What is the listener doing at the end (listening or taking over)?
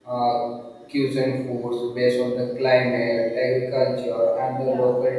listening